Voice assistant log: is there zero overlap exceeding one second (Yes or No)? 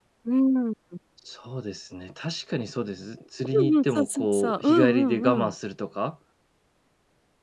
No